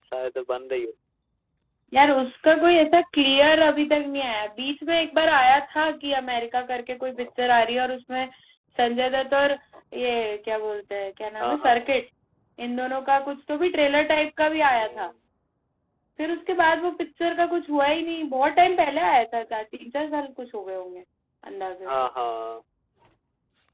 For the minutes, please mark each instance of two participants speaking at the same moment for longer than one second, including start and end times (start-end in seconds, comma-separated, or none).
none